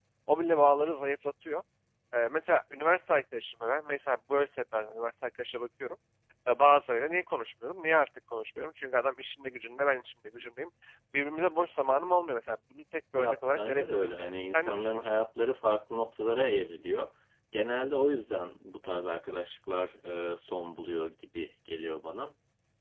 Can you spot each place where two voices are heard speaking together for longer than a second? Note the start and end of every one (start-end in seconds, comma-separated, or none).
13.1-15.1